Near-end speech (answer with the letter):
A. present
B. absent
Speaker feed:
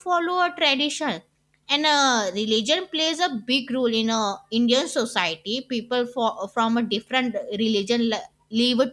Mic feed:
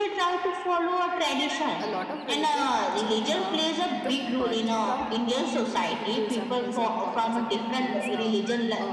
A